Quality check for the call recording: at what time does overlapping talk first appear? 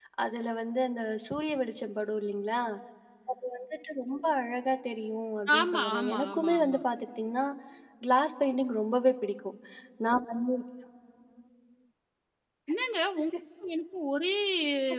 5.5 s

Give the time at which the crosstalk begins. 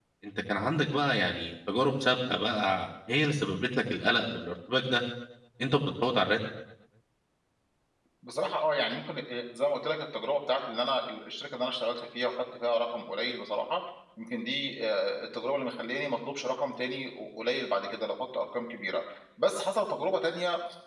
none

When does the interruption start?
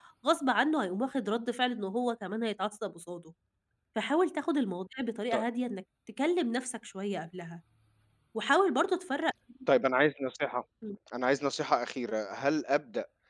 none

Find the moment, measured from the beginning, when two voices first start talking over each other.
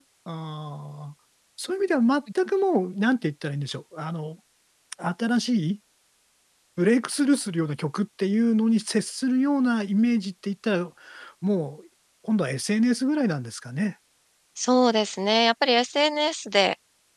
none

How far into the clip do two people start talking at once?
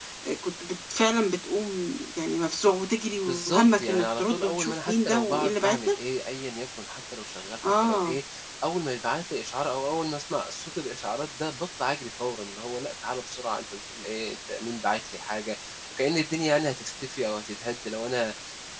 3.3 s

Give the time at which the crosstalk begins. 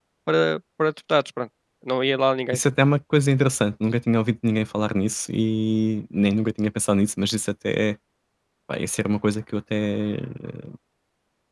none

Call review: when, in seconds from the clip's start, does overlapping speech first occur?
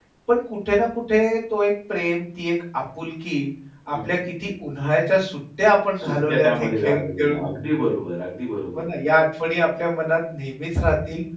6.0 s

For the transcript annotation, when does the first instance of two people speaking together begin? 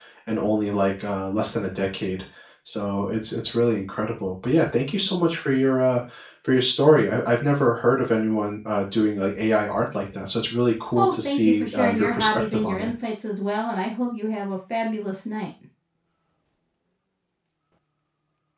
11.0 s

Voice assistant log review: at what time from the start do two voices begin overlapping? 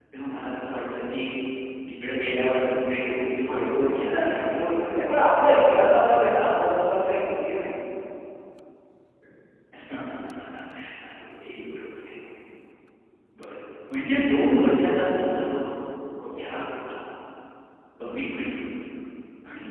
3.5 s

